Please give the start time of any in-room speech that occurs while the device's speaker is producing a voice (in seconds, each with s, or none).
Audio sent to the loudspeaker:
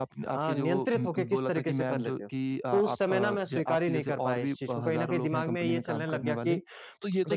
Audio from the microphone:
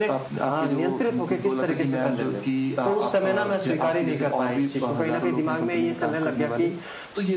none